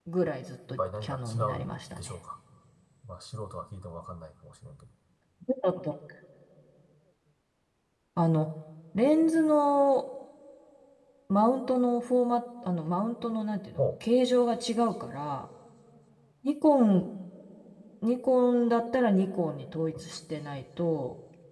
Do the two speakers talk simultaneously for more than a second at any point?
Yes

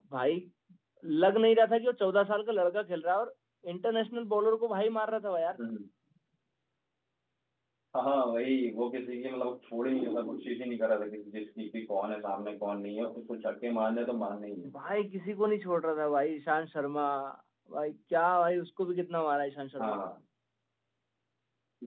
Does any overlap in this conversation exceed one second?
No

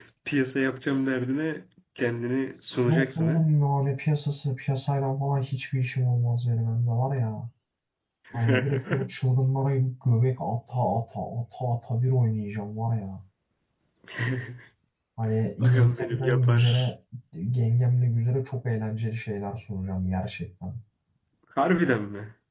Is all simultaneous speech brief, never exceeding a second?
No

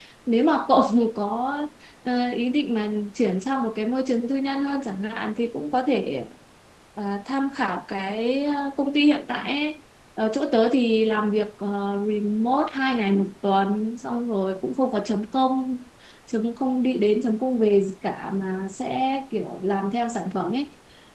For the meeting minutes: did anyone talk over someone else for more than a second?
No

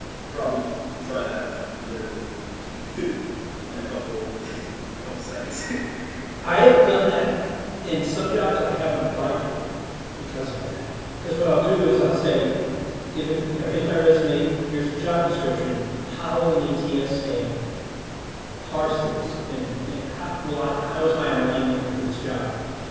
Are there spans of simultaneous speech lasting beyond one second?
No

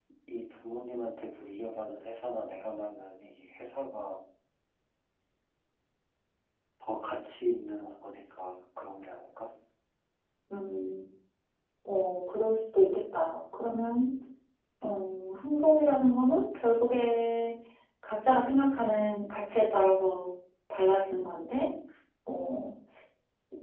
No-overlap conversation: Yes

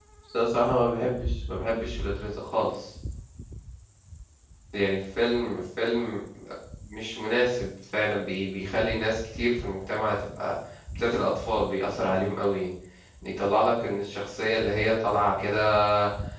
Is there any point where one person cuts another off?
No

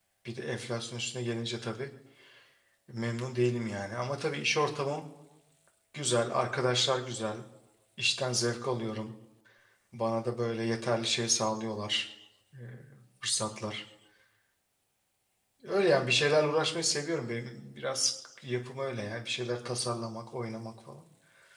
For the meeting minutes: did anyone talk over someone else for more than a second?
No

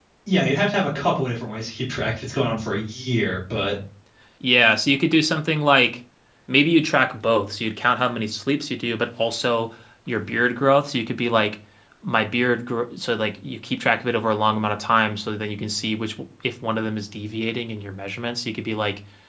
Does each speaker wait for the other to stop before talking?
Yes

